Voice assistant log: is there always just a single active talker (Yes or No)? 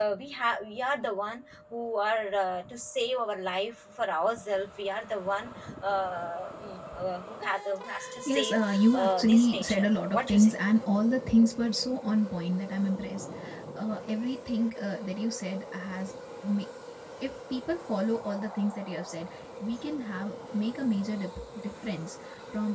No